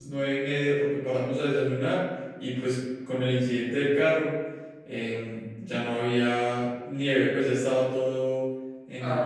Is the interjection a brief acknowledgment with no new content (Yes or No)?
No